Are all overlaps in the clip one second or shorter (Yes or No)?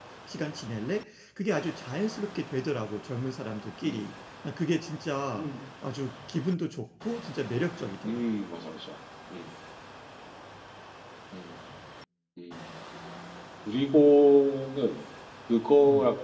Yes